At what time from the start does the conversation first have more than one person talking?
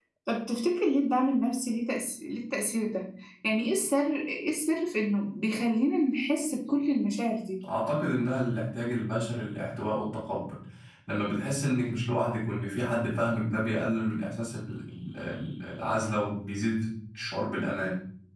none

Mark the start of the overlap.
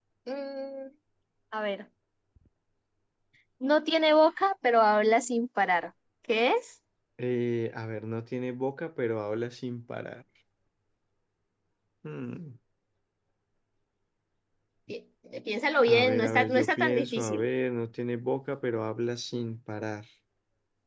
15.8 s

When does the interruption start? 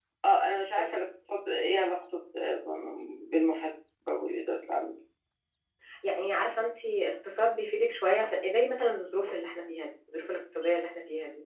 none

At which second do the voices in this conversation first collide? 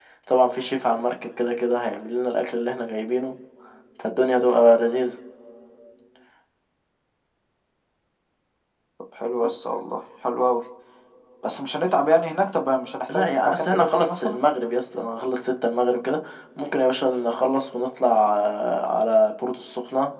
13.1 s

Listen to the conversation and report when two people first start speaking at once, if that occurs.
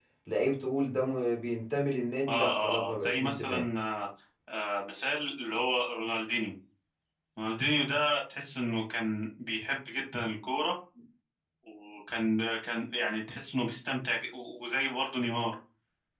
2.3 s

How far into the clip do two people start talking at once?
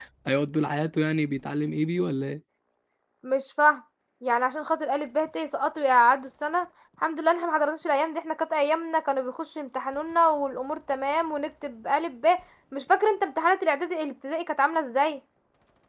none

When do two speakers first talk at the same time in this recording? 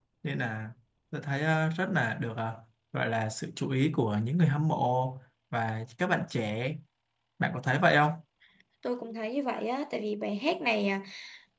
none

